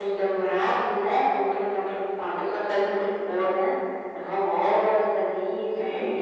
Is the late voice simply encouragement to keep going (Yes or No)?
Yes